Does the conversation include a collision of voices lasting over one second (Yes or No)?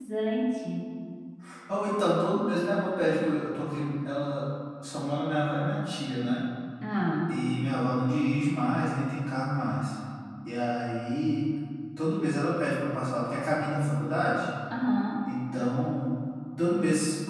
No